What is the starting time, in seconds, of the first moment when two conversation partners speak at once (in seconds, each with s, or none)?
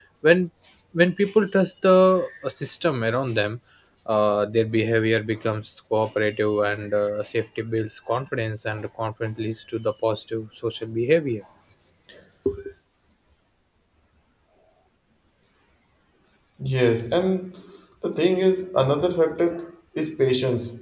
none